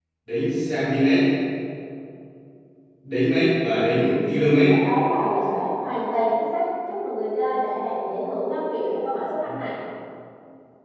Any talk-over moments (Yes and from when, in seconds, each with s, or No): No